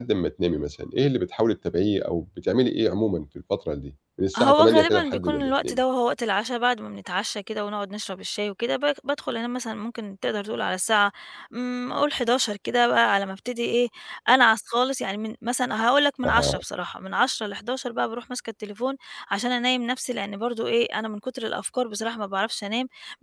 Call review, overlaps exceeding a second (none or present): present